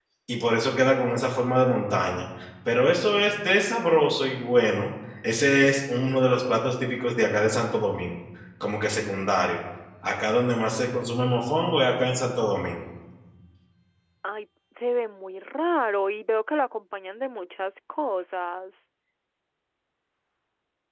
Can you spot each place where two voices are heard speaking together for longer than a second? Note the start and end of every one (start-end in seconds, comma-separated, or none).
none